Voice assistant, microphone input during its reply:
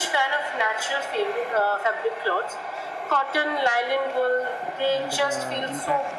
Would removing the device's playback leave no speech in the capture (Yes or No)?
No